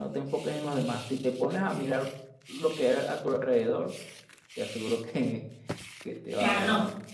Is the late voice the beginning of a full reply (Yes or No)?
Yes